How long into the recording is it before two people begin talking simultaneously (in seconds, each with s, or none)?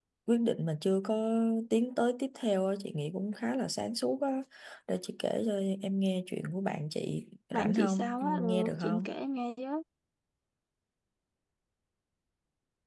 7.5 s